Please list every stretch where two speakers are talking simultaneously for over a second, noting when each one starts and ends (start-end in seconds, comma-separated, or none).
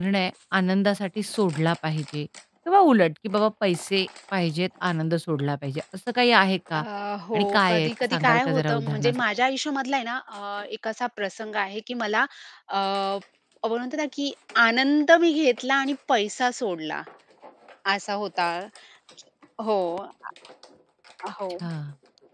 7.3-9.2